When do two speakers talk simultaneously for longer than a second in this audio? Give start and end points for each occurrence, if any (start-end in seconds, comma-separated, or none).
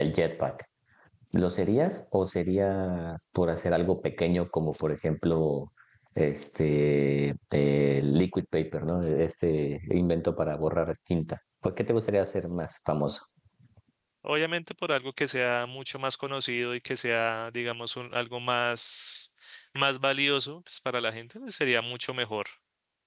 none